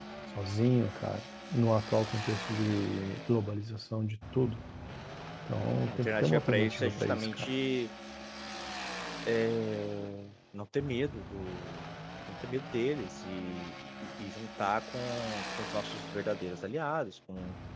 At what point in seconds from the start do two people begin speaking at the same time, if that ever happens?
6 s

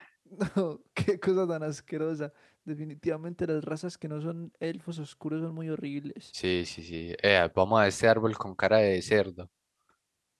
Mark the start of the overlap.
none

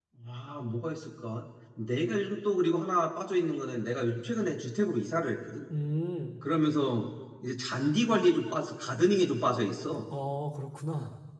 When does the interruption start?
none

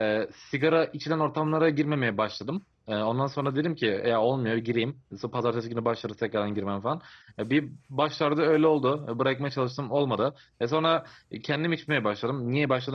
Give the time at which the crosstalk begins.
none

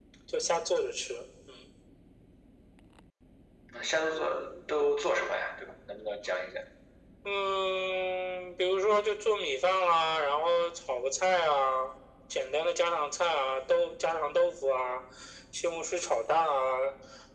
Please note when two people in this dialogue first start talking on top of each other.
none

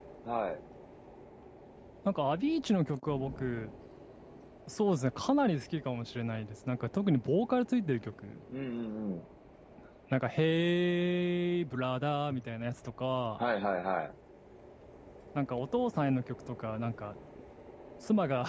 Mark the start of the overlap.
none

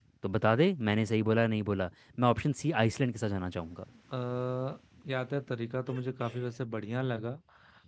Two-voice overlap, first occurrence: none

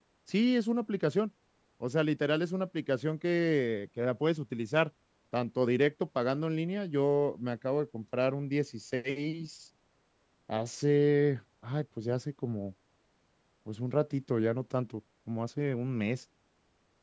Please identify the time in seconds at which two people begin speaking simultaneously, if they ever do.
none

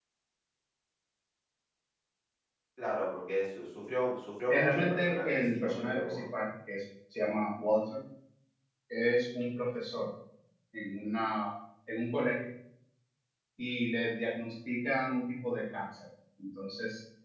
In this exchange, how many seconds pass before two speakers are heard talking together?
4 s

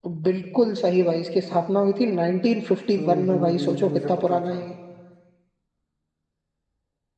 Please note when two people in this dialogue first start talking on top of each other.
3 s

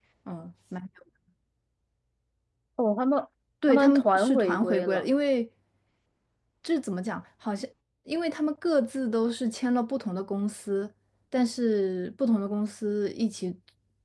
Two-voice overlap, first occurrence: 4 s

